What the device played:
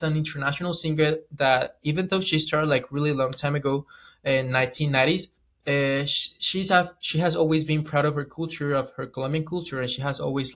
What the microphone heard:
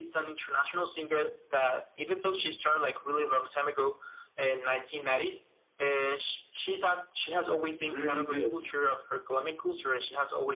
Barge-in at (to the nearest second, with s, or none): 8 s